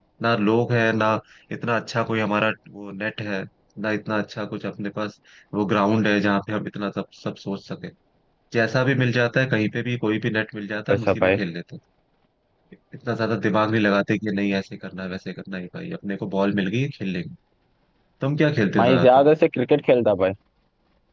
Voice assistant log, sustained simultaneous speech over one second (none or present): none